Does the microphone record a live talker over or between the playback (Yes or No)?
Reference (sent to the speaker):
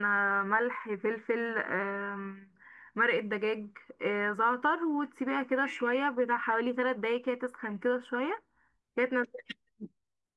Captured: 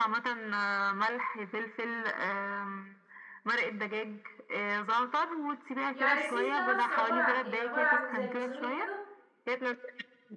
Yes